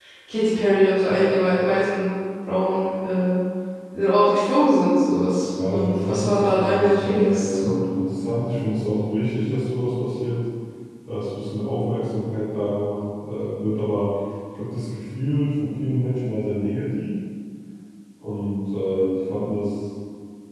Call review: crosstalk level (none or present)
present